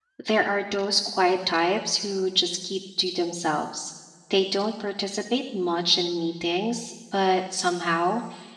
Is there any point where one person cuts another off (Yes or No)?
No